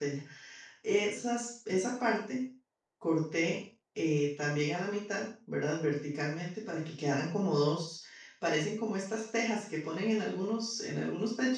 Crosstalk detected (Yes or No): No